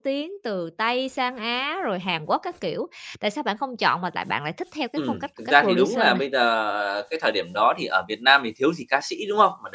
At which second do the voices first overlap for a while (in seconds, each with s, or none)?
5.0 s